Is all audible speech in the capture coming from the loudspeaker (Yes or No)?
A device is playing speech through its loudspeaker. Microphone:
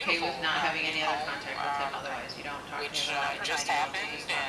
No